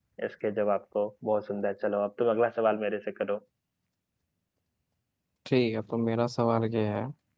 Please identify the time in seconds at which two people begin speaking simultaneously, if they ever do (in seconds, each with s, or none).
none